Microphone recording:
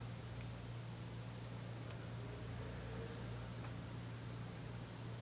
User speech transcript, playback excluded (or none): none